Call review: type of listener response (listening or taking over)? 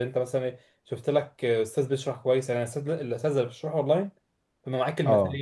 listening